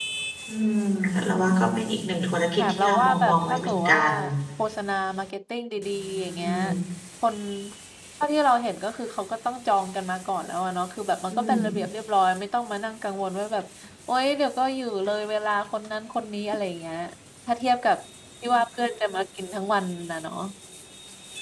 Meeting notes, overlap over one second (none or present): present